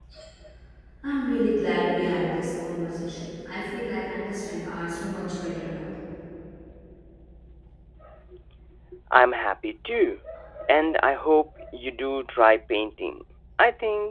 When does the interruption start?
none

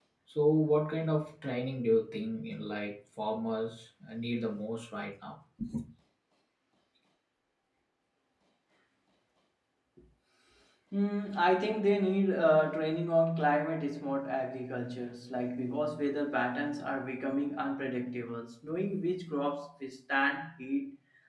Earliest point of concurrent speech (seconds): none

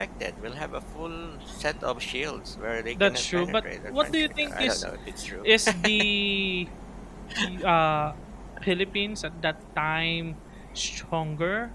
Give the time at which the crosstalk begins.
3.0 s

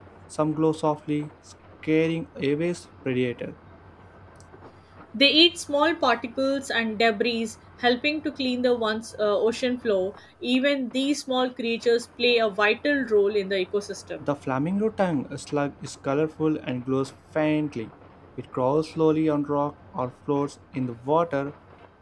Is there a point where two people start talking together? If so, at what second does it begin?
none

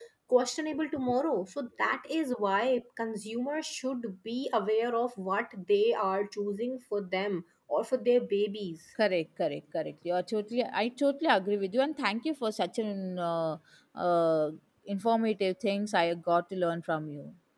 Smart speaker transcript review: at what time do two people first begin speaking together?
none

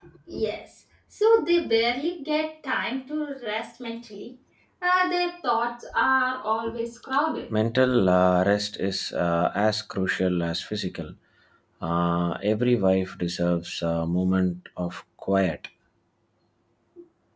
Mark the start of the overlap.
none

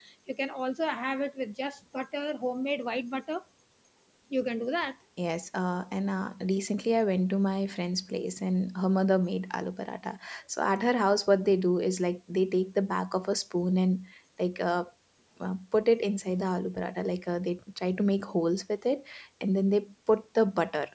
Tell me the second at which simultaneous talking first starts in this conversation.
none

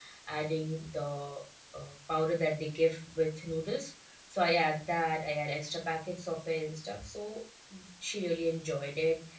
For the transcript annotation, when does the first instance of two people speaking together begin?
none

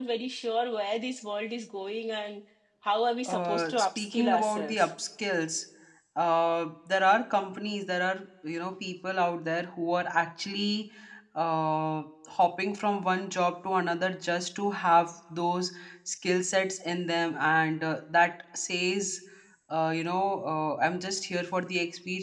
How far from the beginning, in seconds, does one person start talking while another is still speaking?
3.2 s

